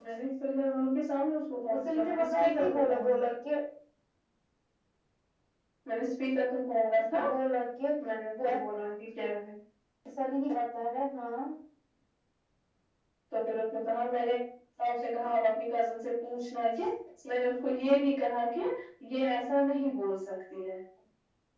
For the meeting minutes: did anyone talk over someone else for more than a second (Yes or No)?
Yes